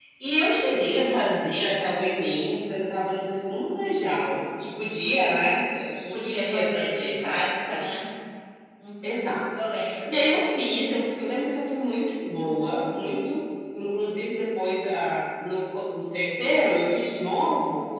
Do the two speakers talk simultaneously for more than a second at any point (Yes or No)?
Yes